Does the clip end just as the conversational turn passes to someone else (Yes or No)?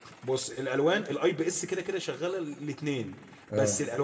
No